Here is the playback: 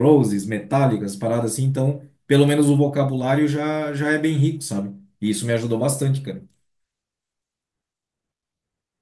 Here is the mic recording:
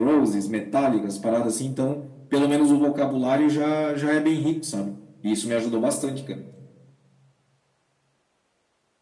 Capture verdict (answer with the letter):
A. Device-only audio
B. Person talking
A